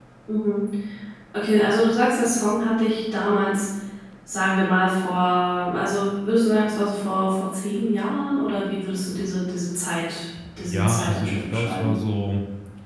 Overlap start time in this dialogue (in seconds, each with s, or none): 10.6 s